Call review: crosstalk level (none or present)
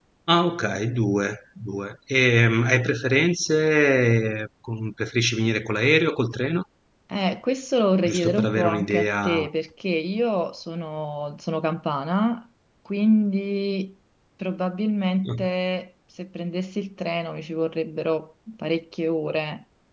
present